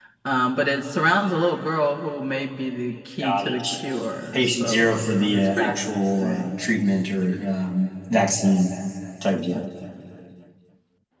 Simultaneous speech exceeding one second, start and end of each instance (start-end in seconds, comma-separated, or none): 4.3-5.7